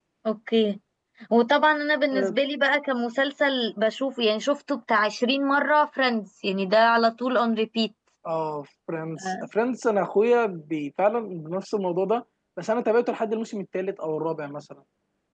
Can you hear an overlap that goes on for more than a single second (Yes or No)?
No